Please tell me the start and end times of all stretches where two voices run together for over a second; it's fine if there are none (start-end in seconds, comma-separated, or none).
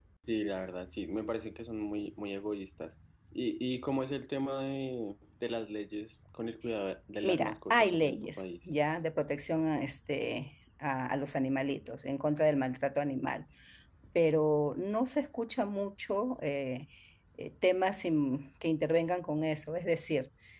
7.2-8.4